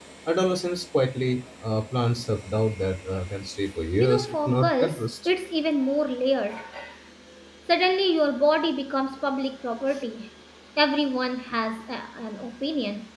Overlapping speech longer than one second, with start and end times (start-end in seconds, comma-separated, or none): 4.0-5.3